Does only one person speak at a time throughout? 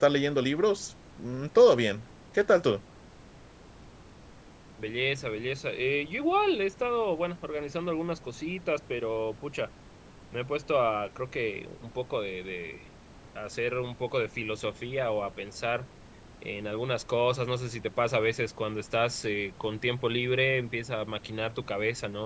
Yes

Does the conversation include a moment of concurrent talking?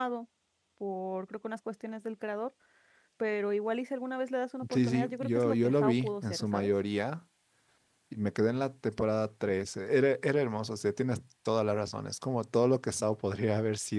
Yes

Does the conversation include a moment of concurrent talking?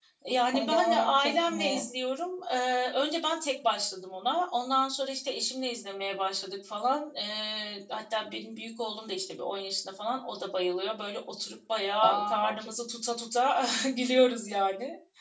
Yes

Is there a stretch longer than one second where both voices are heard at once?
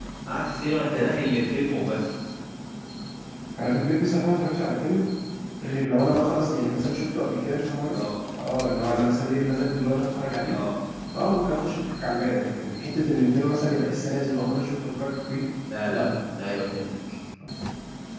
No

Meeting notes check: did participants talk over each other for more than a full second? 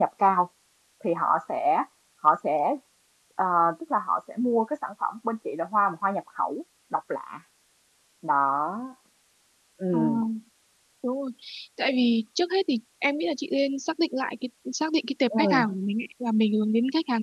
No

